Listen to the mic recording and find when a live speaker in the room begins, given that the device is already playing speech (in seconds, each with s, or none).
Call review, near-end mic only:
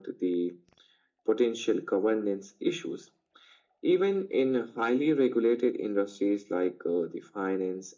none